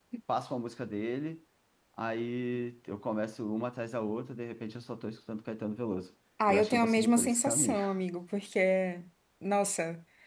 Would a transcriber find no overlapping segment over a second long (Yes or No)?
No